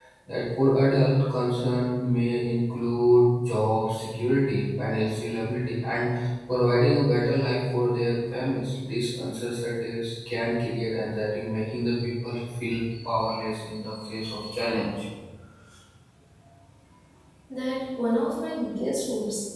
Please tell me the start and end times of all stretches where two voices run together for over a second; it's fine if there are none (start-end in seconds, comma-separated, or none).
none